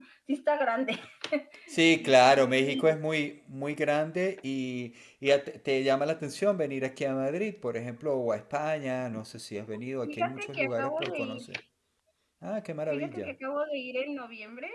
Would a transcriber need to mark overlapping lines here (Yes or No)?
Yes